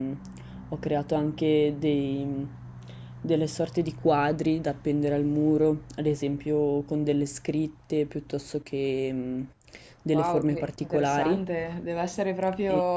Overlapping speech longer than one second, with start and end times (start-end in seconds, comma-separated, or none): 10.1-11.4